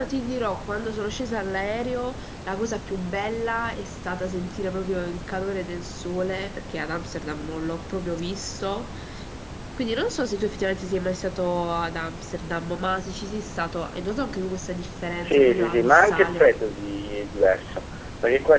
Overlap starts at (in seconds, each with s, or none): 15.2 s